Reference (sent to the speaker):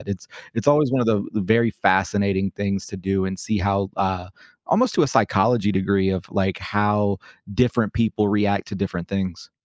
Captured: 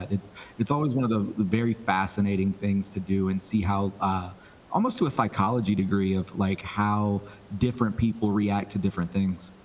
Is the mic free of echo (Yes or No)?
No